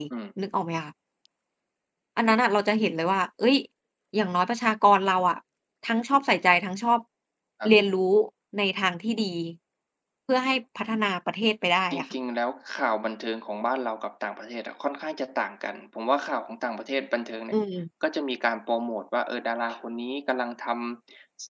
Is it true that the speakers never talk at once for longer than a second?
Yes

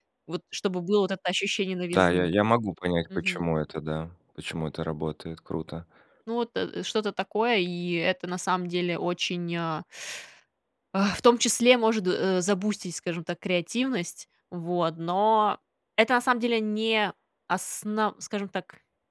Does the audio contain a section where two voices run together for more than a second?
No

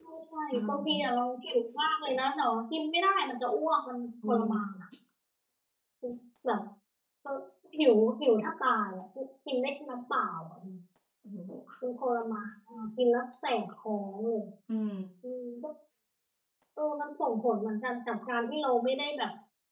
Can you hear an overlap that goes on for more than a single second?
No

